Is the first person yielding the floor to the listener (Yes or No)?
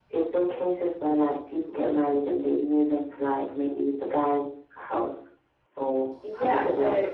Yes